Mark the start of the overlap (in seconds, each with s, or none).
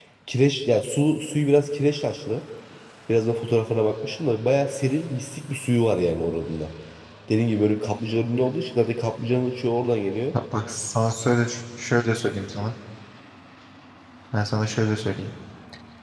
none